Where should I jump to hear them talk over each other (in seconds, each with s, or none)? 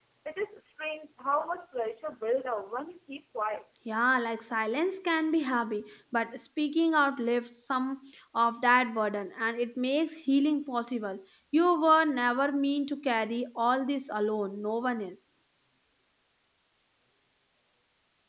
none